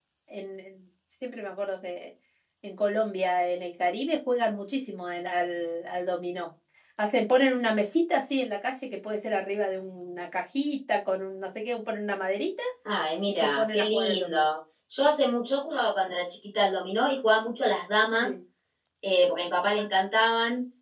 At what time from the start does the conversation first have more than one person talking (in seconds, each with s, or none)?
13.3 s